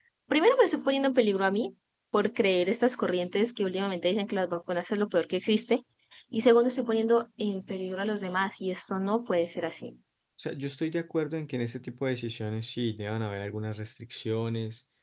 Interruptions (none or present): none